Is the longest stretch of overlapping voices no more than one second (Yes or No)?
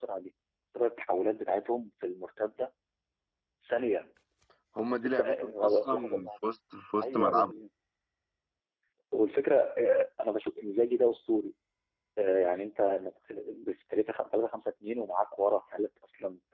No